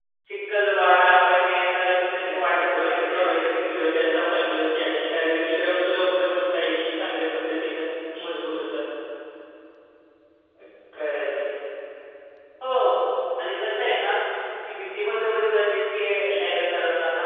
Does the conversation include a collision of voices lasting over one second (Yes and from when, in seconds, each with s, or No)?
Yes, from 2.0 s